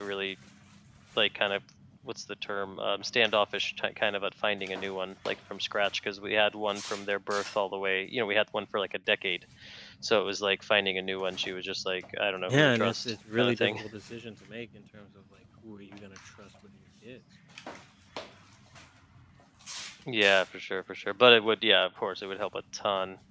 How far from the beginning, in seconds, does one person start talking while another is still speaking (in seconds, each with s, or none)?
12.5 s